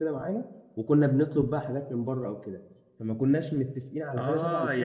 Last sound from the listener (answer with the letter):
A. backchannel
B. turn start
B